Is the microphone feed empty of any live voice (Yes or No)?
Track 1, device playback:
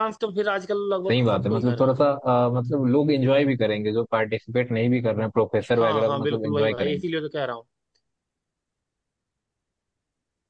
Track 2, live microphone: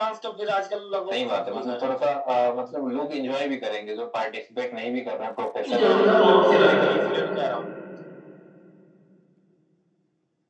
No